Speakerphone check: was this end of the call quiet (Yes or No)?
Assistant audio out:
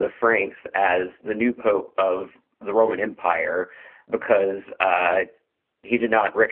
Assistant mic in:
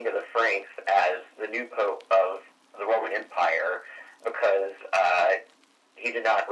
Yes